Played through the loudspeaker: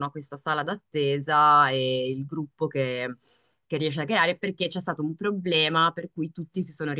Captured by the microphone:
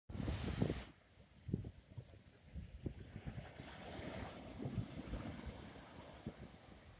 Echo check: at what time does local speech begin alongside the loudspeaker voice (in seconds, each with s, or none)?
none